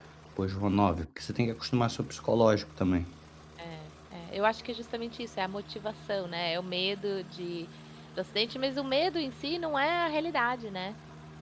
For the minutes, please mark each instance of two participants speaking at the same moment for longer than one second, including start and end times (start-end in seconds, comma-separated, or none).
none